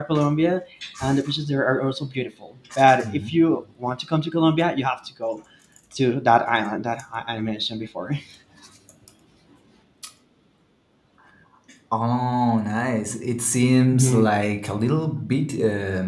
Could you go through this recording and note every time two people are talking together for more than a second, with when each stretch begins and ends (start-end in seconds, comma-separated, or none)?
none